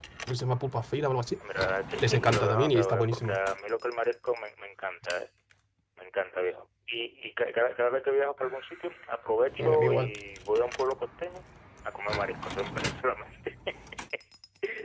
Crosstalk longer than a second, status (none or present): present